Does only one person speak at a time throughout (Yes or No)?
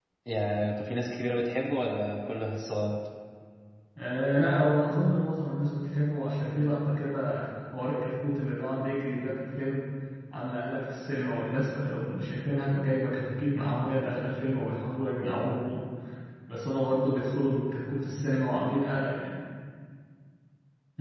Yes